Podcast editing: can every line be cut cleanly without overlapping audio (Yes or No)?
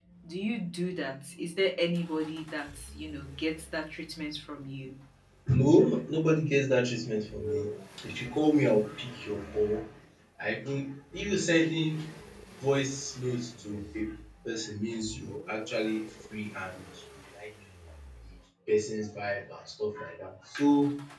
Yes